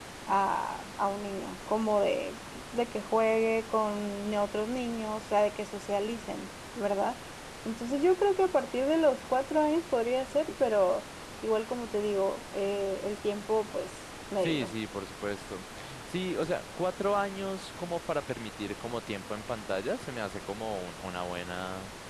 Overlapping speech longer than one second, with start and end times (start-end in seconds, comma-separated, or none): none